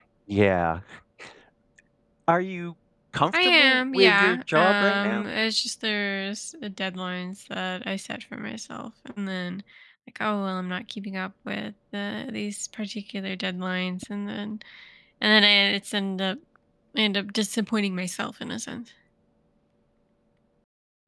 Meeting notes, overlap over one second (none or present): present